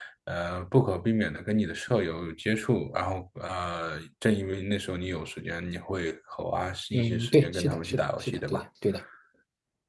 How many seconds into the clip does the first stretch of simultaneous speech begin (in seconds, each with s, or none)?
6.9 s